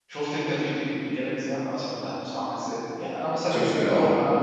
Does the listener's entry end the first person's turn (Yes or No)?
No